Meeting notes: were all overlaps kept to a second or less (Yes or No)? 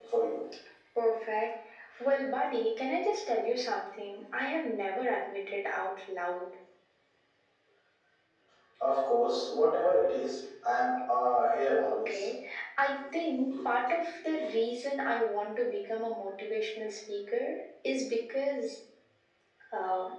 Yes